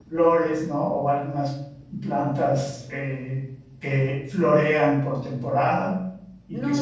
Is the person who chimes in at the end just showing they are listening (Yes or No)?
No